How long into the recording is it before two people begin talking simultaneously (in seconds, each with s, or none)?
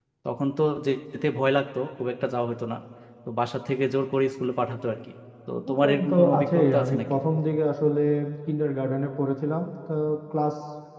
5.5 s